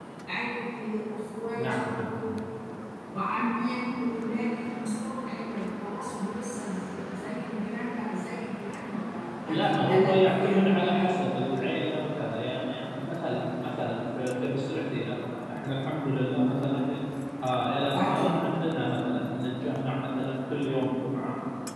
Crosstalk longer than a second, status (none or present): present